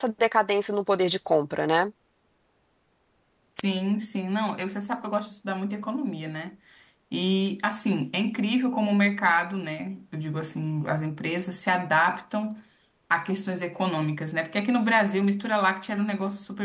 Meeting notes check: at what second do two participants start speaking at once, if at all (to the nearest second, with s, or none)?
none